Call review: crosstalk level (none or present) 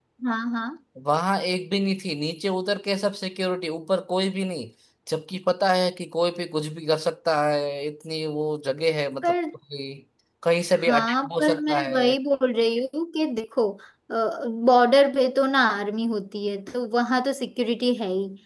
present